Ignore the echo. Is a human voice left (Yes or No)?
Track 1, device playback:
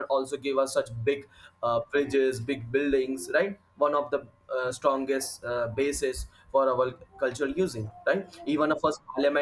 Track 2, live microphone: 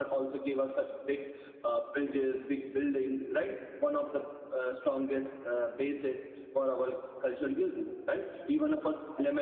No